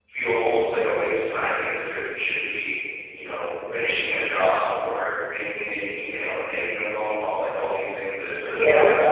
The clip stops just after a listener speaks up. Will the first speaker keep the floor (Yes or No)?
No